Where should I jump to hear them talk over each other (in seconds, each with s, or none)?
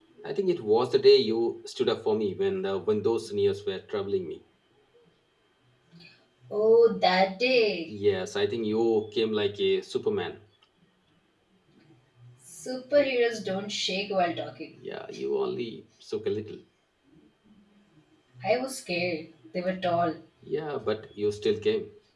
none